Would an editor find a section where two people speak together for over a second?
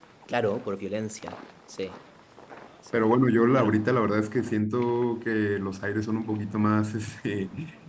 No

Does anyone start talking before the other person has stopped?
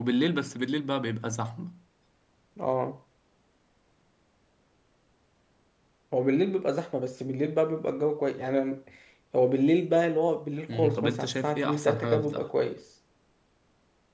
Yes, from 10.7 s

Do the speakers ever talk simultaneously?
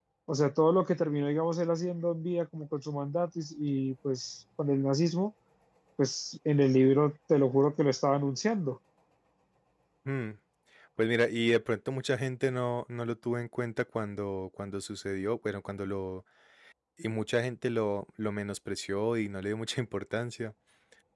No

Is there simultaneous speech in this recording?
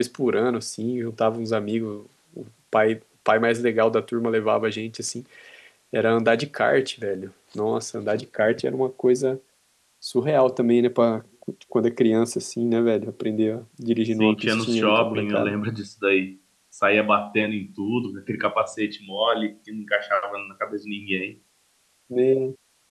Yes, from 14.2 s

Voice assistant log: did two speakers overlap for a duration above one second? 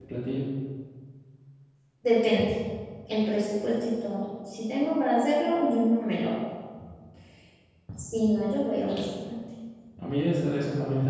No

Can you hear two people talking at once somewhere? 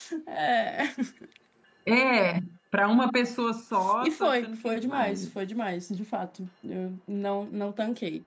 Yes, from 3.8 s

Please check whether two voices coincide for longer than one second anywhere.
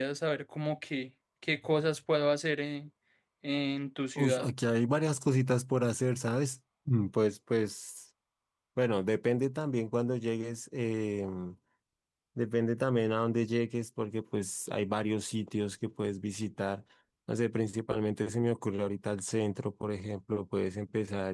No

